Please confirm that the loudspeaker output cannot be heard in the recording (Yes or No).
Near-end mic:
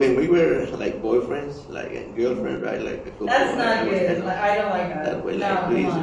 No